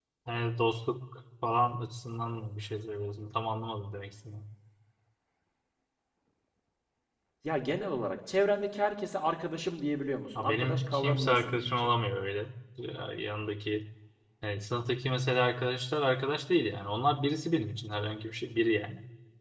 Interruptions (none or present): present